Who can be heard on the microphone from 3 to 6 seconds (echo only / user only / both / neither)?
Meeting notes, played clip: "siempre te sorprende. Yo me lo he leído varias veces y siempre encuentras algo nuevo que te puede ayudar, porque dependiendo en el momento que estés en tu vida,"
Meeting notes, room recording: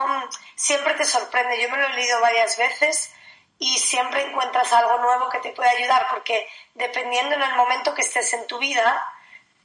echo only